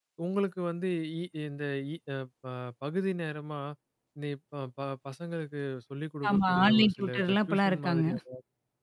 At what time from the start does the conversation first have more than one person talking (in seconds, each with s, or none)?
6.2 s